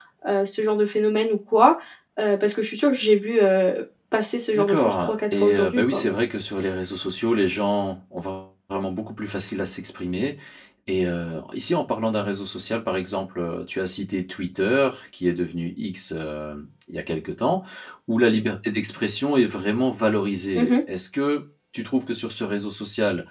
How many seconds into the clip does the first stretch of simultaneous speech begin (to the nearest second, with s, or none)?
5 s